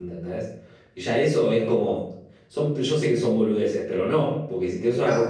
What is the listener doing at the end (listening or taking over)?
listening